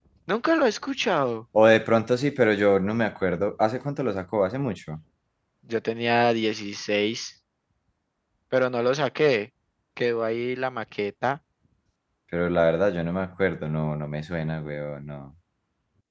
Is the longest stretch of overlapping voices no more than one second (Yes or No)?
Yes